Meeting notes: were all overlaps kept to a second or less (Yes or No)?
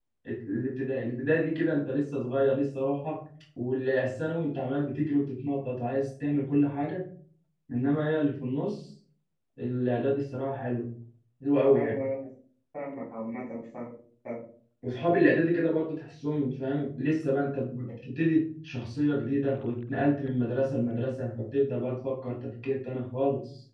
Yes